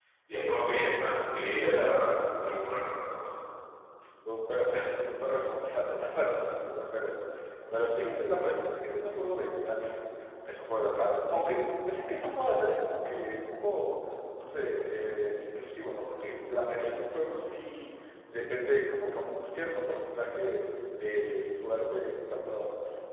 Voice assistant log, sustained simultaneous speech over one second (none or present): none